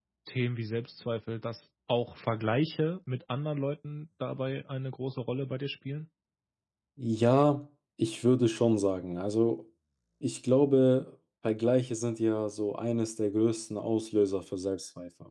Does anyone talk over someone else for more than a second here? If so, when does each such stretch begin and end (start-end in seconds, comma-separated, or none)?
none